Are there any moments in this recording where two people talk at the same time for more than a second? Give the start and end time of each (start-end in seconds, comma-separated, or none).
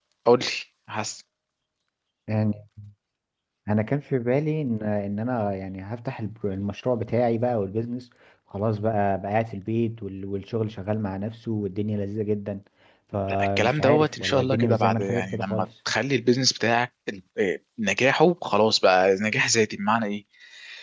13.3-15.7